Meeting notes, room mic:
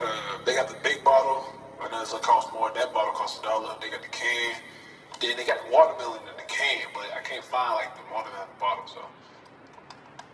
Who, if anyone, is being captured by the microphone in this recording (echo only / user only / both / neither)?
echo only